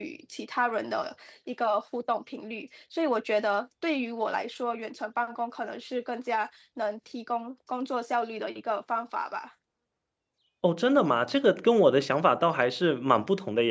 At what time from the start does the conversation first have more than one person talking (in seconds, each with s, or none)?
none